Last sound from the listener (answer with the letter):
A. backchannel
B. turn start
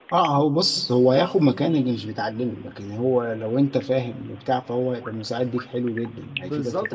B